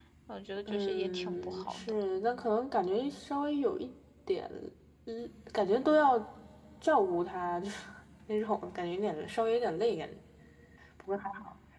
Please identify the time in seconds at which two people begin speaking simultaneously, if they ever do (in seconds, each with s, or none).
0.7 s